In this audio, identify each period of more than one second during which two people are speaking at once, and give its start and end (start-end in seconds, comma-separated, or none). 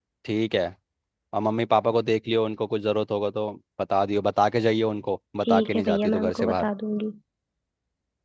5.4-6.7